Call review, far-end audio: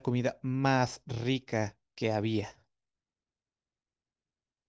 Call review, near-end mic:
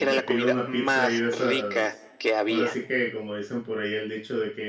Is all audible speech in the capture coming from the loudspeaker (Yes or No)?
No